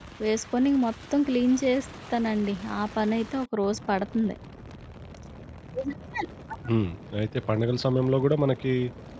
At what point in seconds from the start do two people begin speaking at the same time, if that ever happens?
none

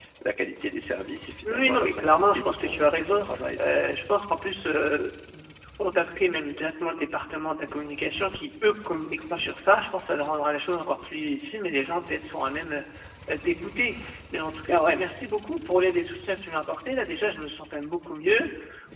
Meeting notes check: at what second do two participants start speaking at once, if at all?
1.4 s

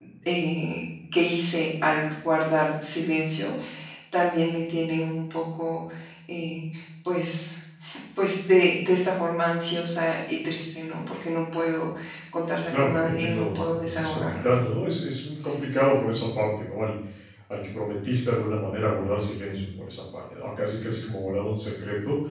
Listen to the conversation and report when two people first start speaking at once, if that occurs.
12.7 s

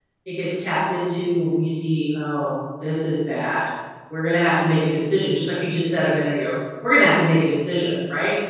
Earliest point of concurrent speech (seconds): none

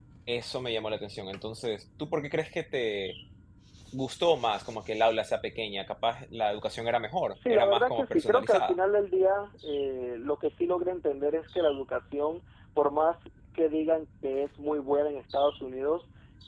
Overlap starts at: 7.3 s

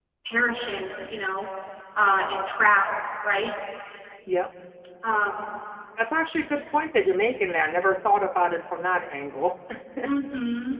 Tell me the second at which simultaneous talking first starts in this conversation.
none

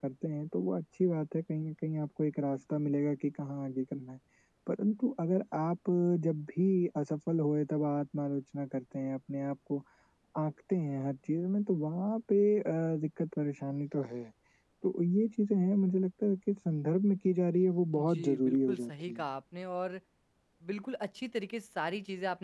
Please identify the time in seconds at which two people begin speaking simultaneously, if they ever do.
17.9 s

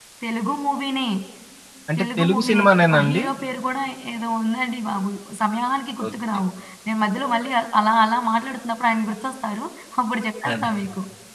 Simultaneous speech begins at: 2.0 s

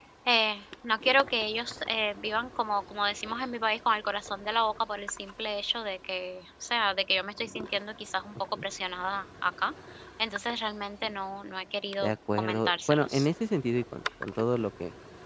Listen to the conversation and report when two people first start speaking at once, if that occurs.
12.0 s

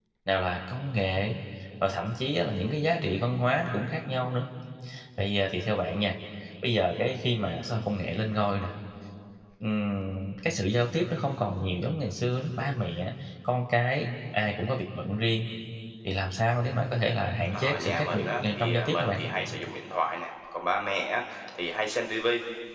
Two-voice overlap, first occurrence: 17.5 s

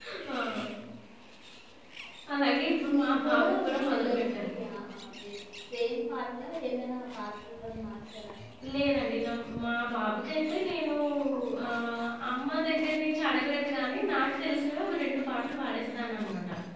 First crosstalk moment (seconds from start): 2.8 s

